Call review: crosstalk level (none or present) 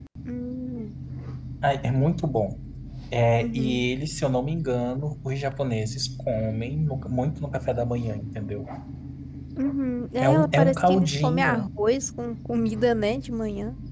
present